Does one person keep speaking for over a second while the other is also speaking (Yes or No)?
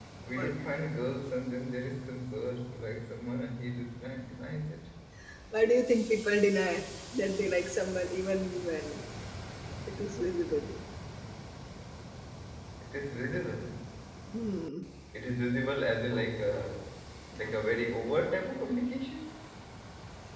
No